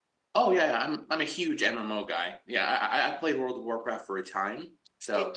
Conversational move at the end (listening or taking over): taking over